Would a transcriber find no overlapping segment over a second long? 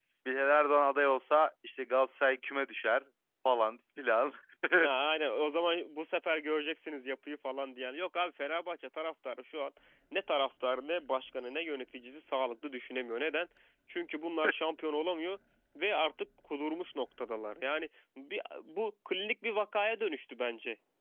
Yes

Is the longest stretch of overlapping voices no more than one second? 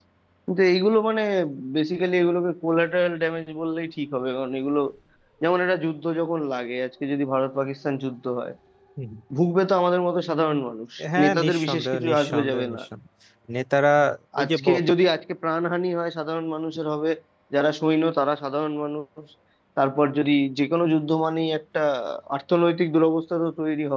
No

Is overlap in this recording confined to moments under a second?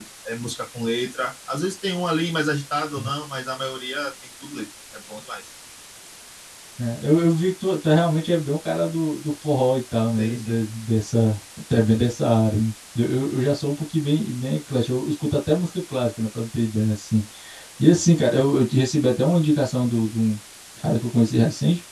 Yes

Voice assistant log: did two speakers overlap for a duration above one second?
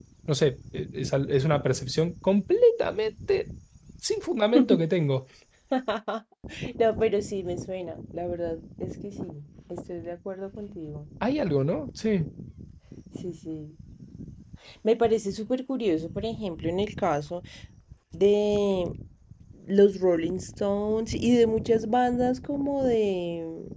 No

